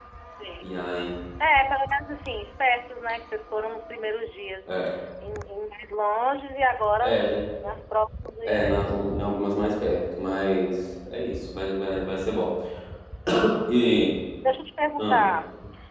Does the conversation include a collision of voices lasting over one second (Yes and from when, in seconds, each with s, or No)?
No